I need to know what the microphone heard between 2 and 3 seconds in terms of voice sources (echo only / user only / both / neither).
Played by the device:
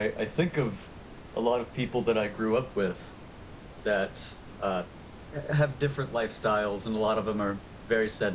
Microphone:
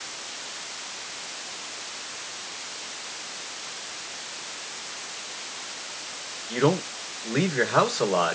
neither